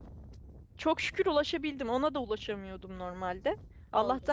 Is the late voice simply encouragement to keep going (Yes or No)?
Yes